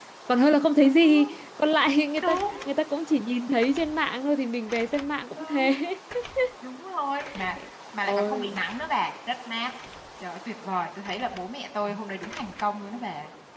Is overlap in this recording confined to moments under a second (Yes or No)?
Yes